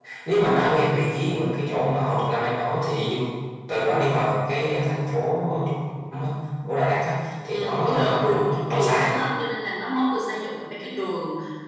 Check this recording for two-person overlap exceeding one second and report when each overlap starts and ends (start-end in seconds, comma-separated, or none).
7.5-9.1